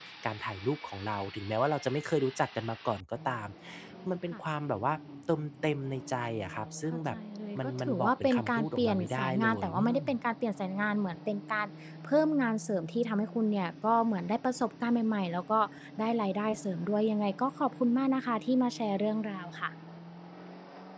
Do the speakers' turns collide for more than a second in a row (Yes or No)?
Yes